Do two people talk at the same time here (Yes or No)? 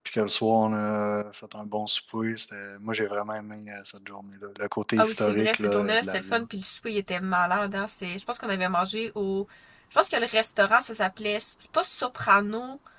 Yes